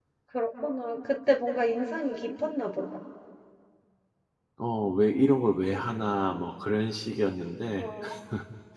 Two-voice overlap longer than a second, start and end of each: none

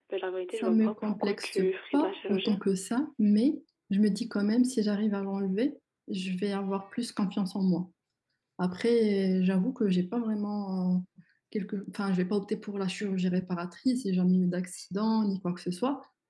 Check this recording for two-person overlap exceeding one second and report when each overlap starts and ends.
0.6-2.6

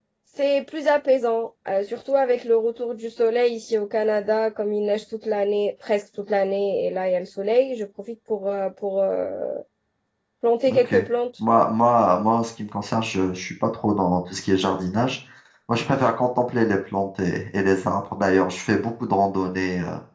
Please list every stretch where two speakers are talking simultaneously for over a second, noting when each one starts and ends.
none

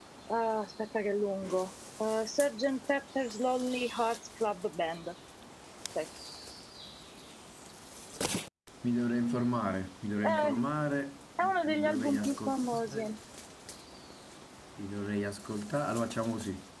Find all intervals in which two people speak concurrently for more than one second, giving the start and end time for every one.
11.4-13.1

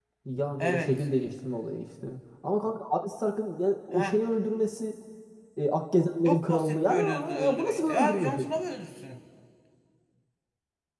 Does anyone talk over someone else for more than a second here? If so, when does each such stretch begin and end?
6.2-8.4

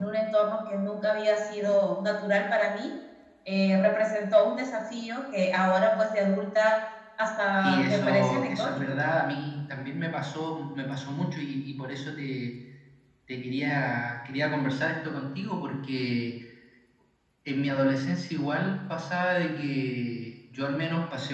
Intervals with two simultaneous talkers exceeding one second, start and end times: 7.6-9.0

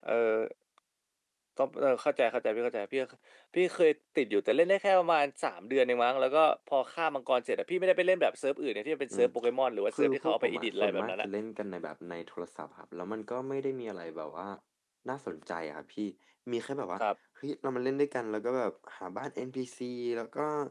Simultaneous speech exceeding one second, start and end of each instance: 10.0-11.3

